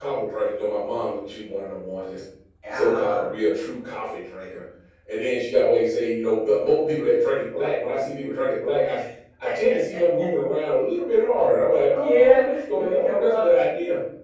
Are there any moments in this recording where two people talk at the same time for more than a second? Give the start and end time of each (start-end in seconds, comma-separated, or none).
11.9-13.4